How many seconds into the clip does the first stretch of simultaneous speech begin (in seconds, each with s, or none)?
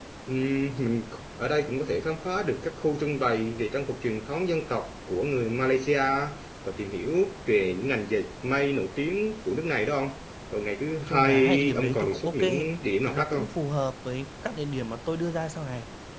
11.0 s